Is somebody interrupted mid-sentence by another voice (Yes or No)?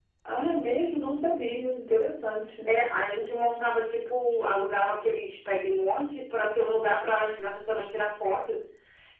No